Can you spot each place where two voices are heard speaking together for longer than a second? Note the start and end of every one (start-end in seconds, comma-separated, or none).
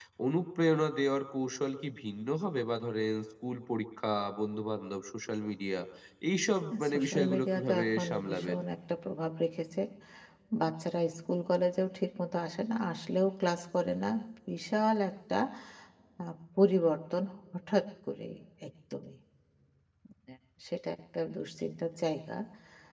6.9-8.6